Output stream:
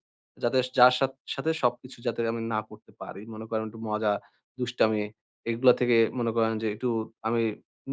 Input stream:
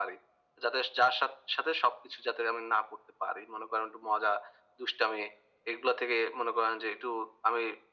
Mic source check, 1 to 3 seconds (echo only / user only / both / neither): echo only